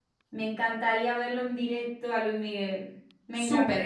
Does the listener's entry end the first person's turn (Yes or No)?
Yes